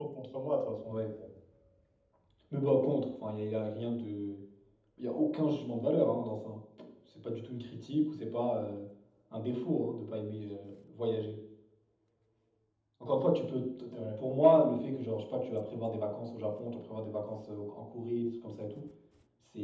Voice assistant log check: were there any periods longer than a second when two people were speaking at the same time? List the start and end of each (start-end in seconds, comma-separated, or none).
none